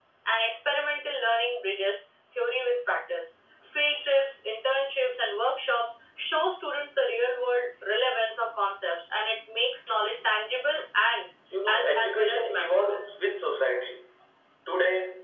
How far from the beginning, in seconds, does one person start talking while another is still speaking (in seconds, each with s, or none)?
11.7 s